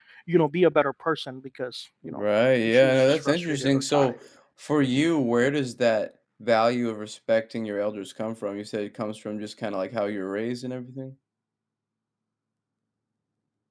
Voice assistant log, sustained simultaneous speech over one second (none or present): present